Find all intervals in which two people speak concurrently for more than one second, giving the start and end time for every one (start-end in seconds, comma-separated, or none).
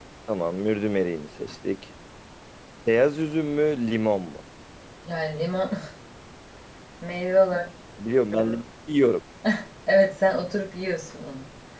none